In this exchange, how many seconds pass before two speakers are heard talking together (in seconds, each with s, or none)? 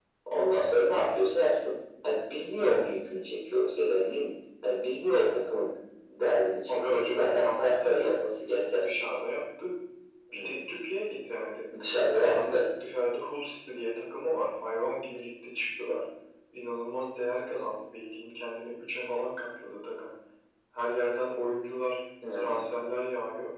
6.7 s